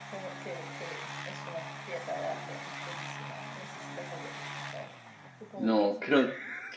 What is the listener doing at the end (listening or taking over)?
taking over